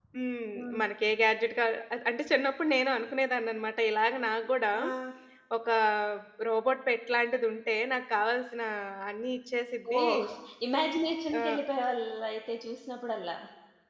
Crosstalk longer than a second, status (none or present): none